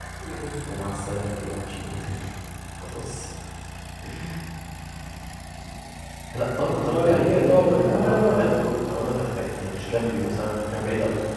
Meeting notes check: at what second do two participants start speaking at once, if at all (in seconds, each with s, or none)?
6.7 s